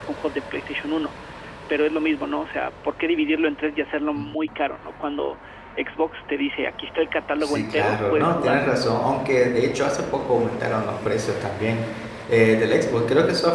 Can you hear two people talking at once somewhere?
Yes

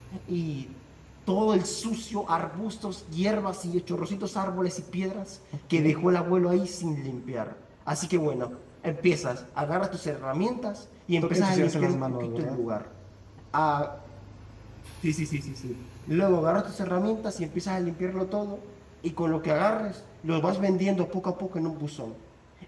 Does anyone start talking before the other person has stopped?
Yes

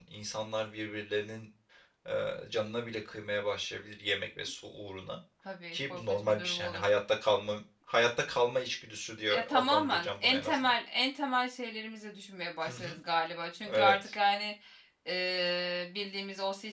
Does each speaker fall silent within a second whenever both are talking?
No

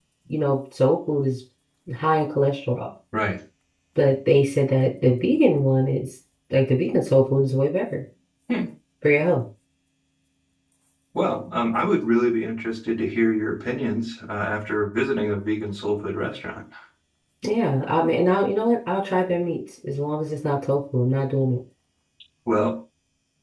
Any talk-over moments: No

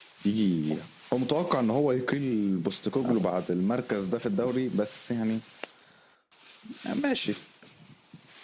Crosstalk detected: No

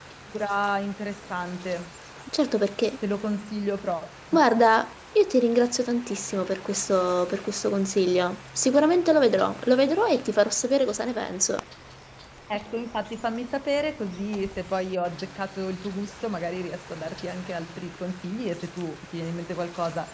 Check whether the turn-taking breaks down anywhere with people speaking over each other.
No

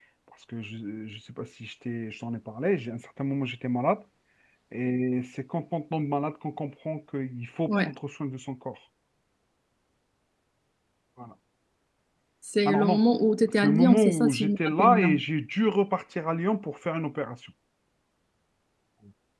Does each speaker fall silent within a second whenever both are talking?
No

